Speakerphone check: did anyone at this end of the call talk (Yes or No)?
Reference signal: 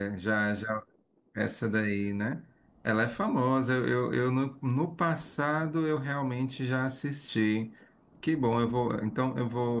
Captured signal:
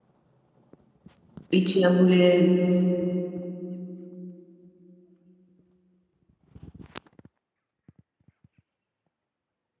Yes